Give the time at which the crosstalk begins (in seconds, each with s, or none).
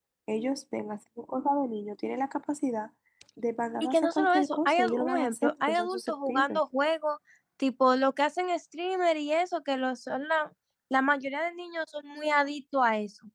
3.8 s